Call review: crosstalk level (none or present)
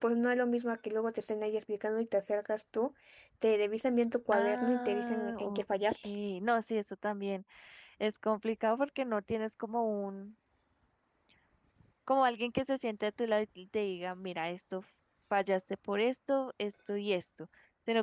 present